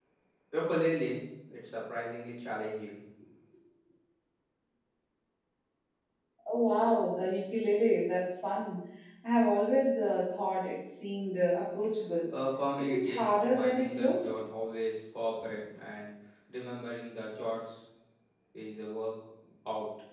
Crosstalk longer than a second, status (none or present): present